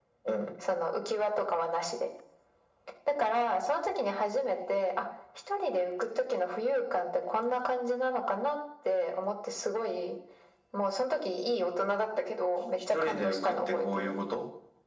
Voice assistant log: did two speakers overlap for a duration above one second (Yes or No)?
Yes